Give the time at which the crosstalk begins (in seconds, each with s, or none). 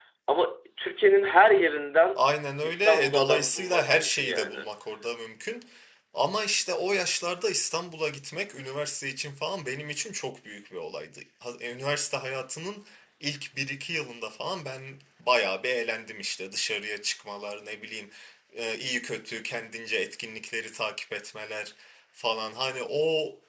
2.6 s